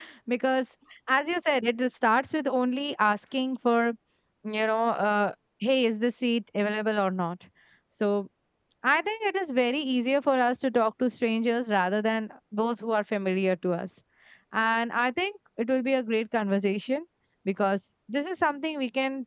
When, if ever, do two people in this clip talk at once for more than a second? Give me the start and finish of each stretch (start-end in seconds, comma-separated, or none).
none